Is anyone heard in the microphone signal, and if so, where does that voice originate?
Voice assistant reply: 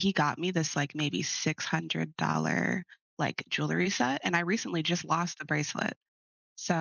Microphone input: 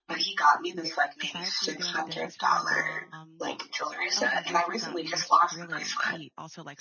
both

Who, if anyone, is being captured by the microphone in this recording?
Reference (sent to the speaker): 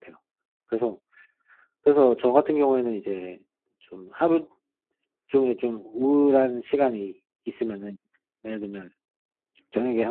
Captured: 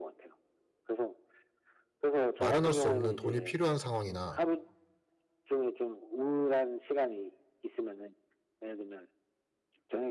both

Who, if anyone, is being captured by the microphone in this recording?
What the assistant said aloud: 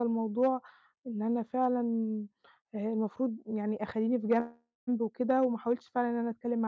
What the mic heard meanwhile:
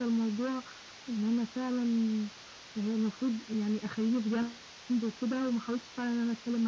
echo only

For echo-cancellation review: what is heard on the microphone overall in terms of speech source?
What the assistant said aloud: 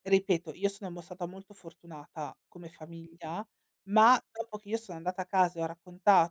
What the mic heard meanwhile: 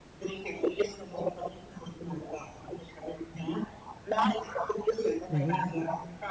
both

